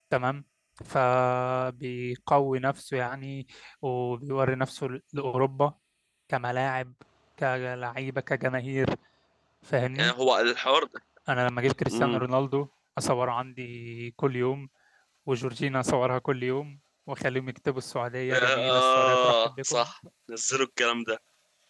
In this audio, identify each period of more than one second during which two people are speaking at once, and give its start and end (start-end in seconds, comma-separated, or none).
18.3-19.9